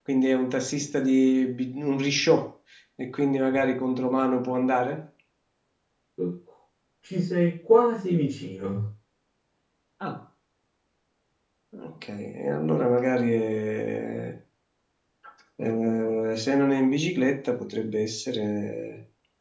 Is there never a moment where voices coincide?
Yes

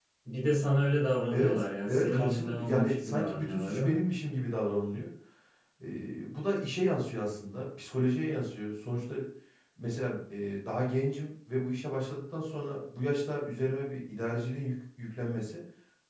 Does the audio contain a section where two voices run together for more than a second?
Yes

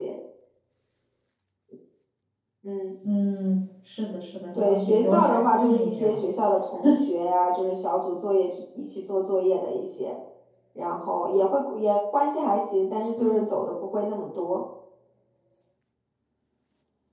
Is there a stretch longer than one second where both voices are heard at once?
Yes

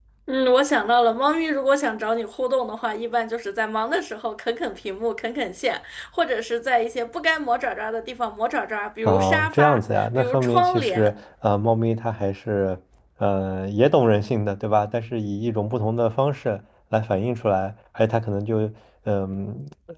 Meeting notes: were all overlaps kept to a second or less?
No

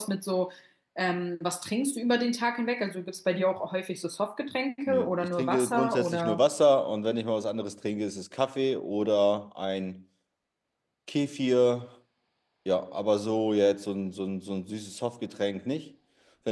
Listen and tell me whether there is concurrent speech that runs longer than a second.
Yes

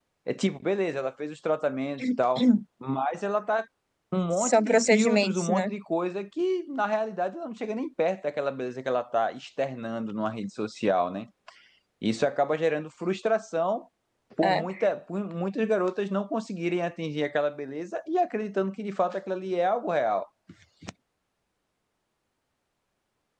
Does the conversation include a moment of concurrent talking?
Yes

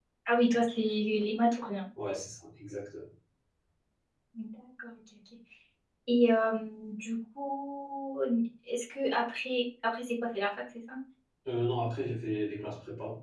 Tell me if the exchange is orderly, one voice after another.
Yes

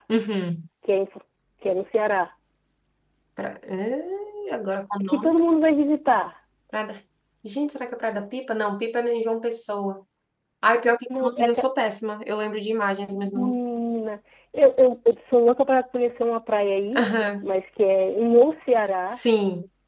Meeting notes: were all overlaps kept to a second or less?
Yes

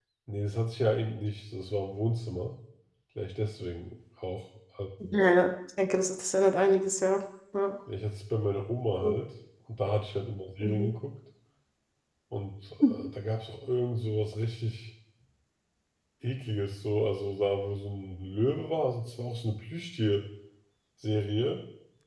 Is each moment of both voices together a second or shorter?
Yes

